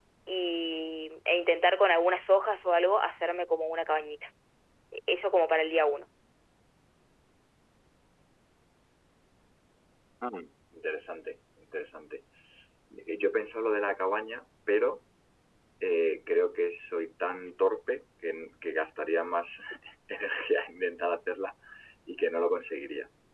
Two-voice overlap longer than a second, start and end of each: none

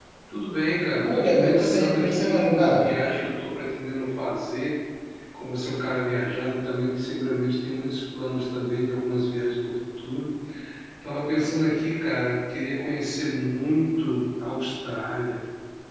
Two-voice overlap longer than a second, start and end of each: 1.0-2.8

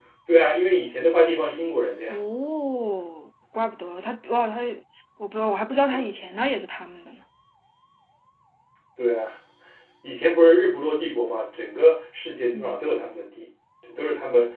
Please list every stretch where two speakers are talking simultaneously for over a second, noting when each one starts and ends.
none

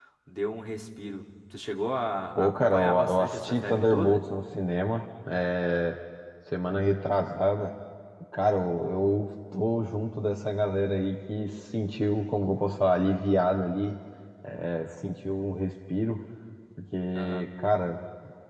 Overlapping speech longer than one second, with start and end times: 2.4-4.2

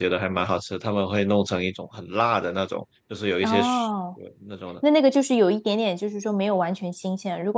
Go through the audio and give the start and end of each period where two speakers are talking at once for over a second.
none

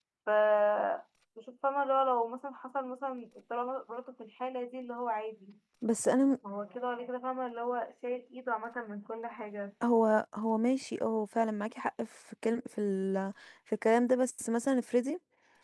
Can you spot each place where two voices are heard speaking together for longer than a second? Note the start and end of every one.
none

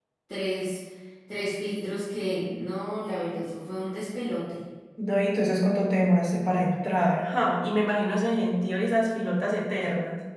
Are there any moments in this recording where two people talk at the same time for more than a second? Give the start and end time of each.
none

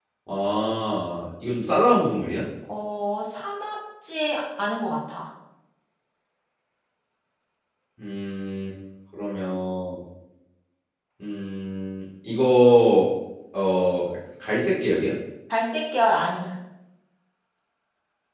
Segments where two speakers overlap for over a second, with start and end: none

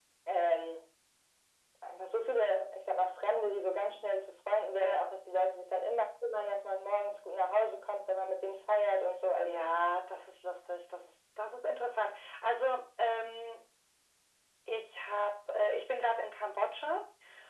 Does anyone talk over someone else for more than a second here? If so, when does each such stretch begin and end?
none

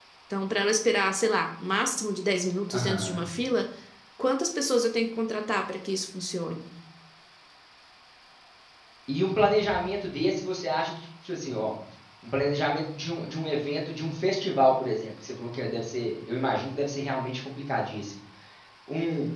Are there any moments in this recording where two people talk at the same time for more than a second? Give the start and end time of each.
none

